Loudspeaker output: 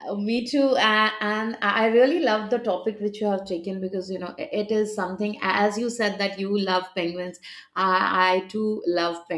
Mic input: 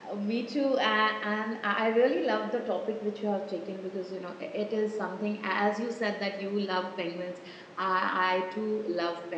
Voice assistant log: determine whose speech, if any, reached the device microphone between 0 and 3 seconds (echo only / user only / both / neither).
echo only